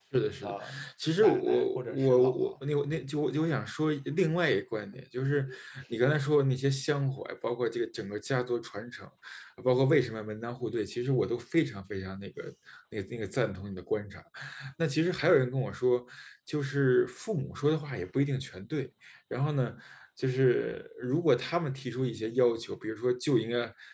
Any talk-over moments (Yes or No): Yes